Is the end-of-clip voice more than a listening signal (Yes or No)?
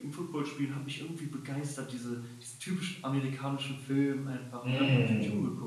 Yes